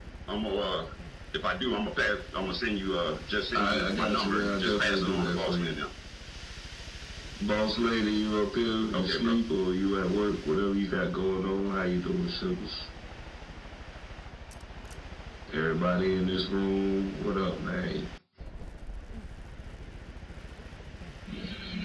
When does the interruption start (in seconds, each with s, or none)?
3.5 s